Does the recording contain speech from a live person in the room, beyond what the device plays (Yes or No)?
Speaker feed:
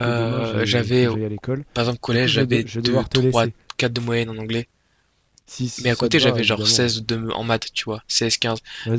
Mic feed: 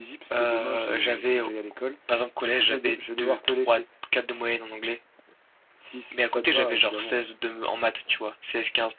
No